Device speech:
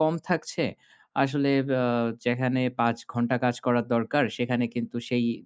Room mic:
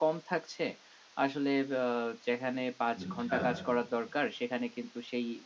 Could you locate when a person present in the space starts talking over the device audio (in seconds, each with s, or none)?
3.0 s